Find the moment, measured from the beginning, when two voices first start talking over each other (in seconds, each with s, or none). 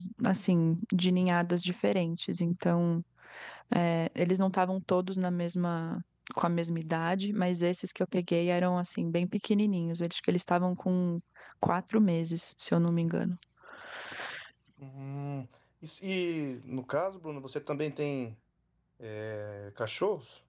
none